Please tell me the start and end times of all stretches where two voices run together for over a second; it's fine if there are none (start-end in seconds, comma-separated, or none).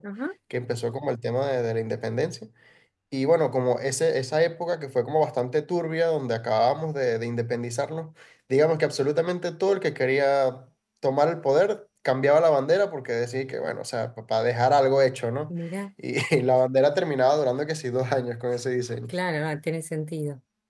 none